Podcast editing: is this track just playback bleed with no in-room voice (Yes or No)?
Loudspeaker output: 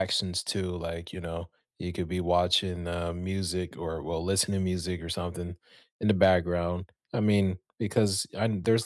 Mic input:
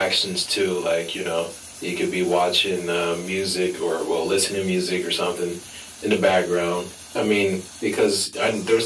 Yes